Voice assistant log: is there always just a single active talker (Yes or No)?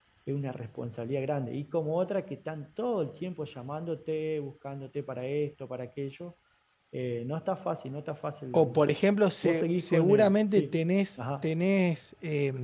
No